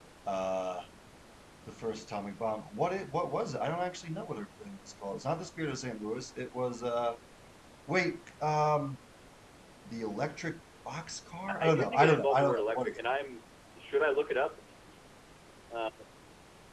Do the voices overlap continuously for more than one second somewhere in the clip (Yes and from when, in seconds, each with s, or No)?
Yes, from 11.5 s